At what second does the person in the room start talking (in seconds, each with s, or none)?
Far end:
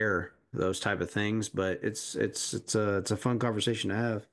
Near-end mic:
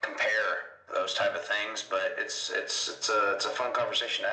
none